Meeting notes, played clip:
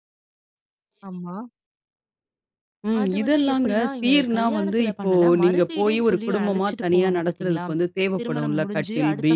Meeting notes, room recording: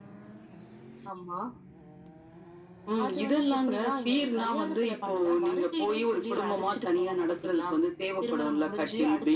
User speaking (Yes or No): No